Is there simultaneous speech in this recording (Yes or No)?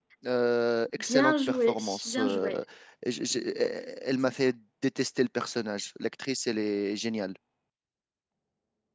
Yes